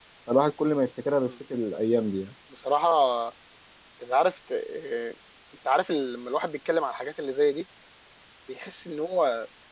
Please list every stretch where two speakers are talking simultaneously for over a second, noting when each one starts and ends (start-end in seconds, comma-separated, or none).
none